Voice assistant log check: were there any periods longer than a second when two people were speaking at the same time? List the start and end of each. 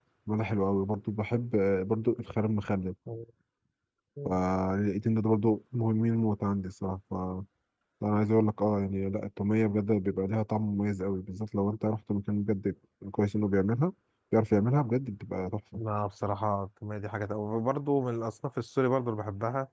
none

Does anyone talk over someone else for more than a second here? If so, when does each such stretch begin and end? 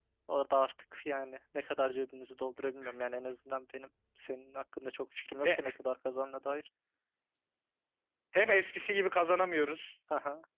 none

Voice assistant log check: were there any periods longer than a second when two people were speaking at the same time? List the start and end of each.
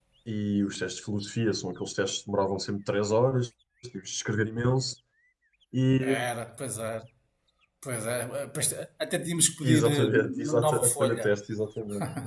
9.6-11.3

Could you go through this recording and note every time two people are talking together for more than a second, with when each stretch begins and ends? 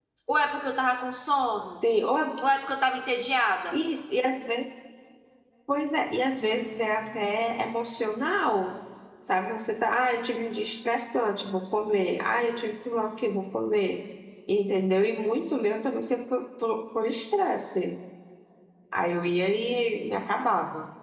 none

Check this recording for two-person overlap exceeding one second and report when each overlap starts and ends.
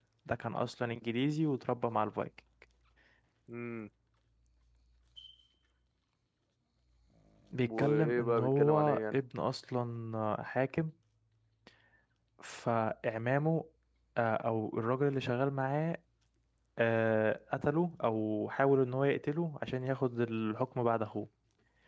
7.6-9.2

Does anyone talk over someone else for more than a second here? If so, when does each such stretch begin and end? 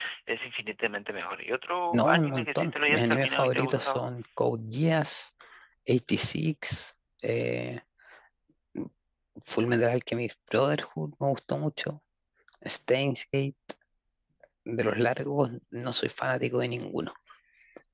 1.9-4.0

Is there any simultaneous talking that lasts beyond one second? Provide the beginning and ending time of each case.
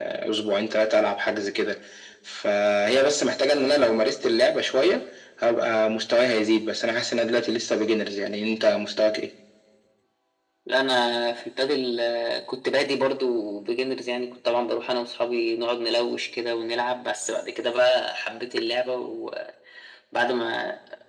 none

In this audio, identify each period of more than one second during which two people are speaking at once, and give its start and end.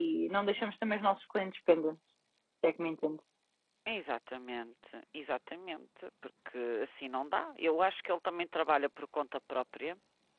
none

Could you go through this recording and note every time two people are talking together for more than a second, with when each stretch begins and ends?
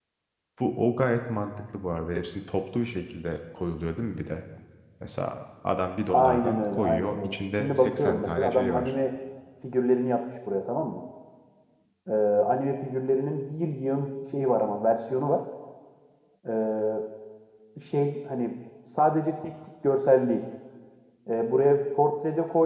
6.1-8.9

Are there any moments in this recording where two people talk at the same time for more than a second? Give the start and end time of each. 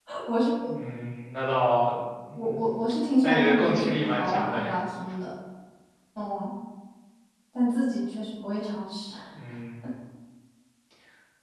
3.2-4.8

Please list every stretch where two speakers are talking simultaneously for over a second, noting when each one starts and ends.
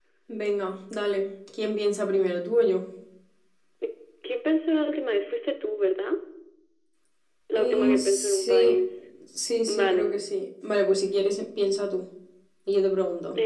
7.6-8.8

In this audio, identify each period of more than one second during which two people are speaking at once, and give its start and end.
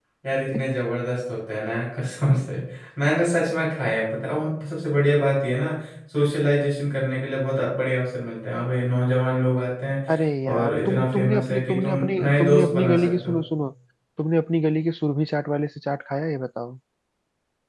10.5-13.4

